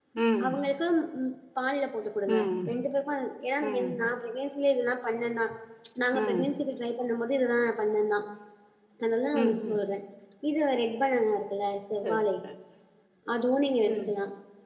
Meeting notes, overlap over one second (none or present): none